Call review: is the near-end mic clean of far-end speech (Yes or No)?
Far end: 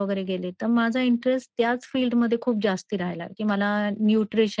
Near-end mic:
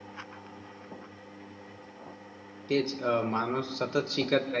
Yes